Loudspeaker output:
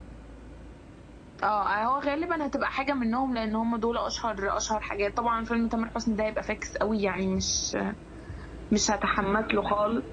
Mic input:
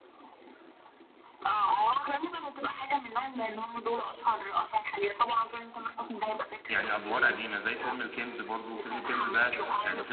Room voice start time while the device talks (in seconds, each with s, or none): 6.7 s